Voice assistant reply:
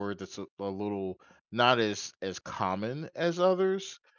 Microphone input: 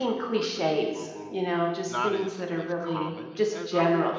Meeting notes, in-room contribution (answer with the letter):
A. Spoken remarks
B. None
A